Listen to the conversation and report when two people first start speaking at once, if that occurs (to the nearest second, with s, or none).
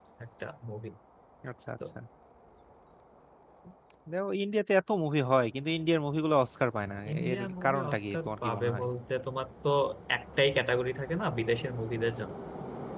7 s